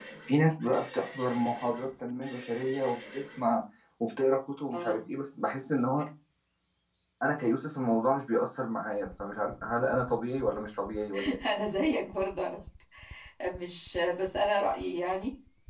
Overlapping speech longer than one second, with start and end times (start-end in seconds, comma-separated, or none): none